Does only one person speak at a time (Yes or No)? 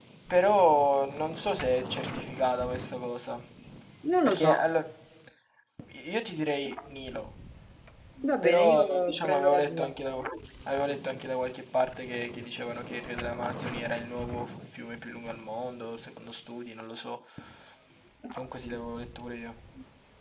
No